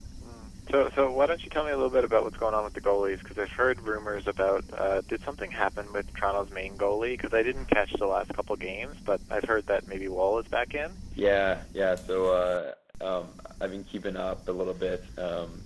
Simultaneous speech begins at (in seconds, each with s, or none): none